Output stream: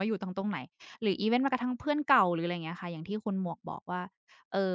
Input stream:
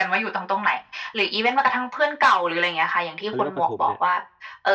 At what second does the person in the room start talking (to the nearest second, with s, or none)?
3 s